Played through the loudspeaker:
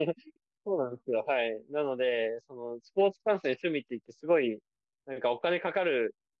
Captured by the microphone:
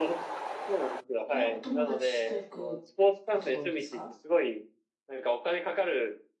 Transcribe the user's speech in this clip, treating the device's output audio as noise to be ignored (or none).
それはお友達と行くことが多いんですか